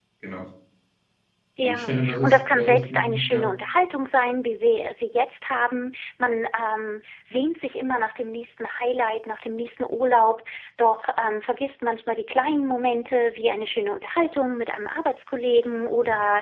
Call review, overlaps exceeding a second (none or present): present